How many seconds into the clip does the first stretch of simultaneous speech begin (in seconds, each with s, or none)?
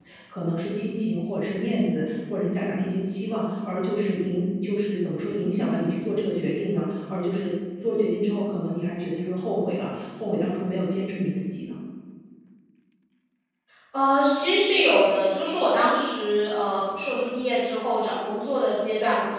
none